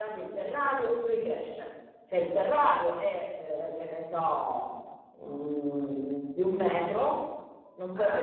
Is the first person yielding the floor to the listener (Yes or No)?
No